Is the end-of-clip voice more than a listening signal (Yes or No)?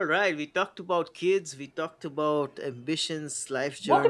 Yes